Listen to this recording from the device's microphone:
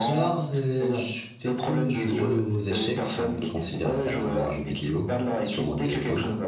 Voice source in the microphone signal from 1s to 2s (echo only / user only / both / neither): both